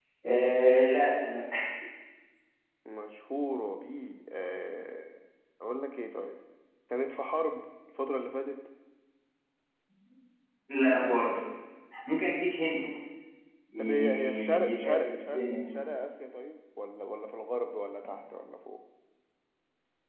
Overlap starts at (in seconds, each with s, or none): 13.8 s